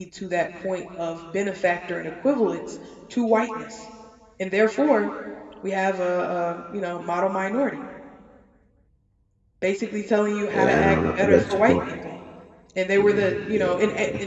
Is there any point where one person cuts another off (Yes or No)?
Yes